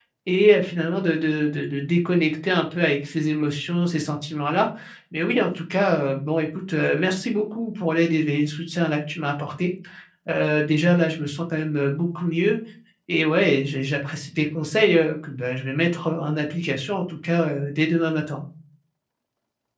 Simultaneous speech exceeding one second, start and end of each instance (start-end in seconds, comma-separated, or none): none